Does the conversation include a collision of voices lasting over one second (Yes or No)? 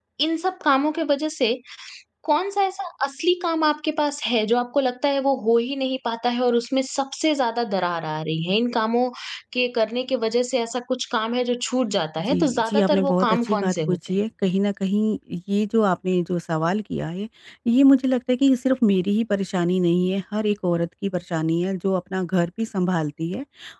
Yes